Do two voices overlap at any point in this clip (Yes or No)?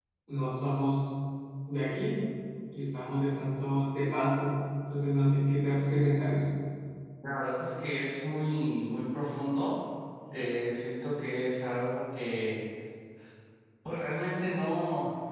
No